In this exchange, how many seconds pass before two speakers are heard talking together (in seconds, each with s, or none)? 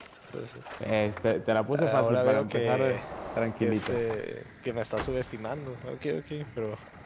1.7 s